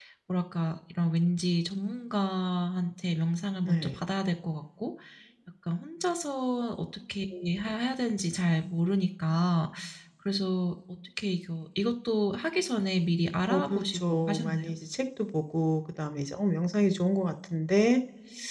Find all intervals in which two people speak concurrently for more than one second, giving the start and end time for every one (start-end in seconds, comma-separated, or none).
13.5-14.7